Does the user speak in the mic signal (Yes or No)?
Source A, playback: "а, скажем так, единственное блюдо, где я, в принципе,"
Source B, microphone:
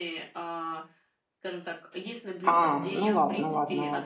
Yes